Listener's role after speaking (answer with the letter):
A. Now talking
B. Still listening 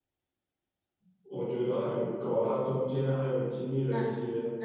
A